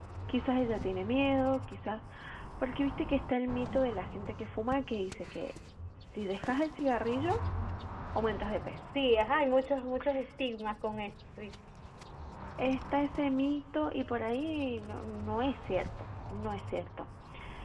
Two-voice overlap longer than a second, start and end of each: none

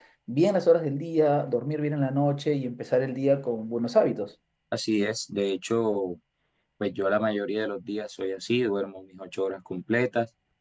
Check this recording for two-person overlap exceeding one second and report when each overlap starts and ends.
none

